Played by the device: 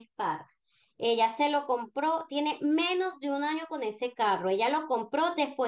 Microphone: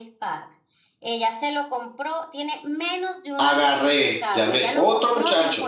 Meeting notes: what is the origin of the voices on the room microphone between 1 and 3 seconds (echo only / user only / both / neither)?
echo only